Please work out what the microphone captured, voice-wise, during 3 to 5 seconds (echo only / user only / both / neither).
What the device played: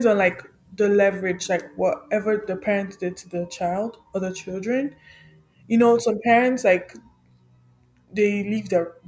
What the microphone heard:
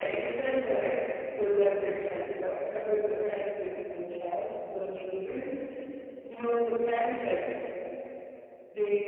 echo only